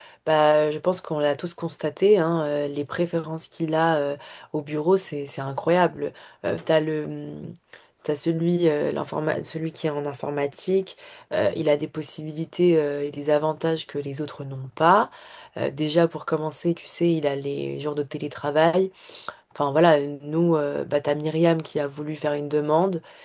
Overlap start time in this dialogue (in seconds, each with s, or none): none